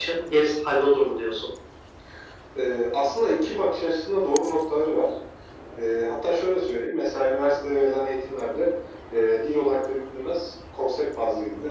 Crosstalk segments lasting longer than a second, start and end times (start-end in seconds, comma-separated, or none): none